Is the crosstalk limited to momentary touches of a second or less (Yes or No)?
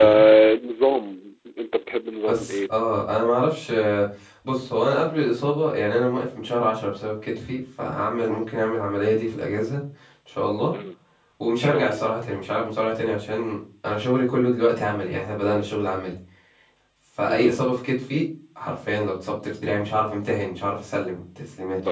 Yes